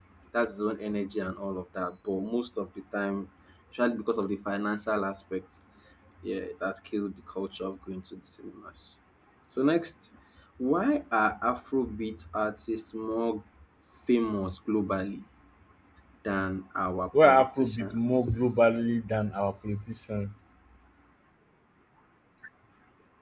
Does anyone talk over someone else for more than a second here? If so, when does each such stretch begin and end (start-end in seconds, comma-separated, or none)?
17.2-18.5